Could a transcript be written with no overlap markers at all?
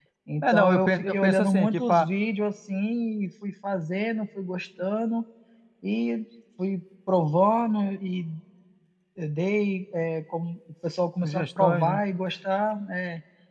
No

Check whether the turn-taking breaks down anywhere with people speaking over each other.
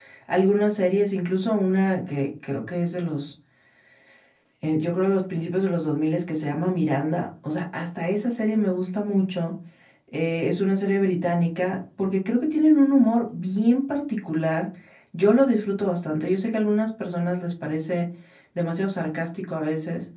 No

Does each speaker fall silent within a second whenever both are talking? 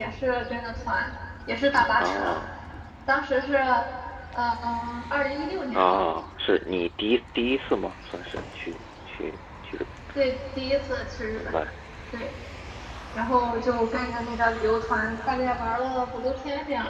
Yes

